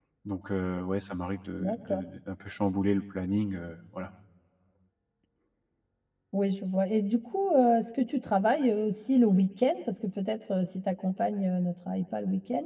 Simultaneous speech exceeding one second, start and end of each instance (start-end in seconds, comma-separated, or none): none